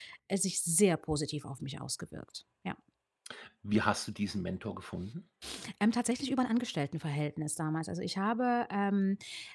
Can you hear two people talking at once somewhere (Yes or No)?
No